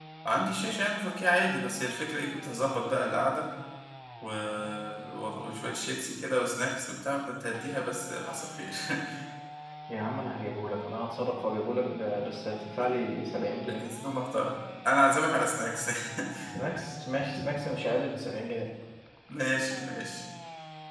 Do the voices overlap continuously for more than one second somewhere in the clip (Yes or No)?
No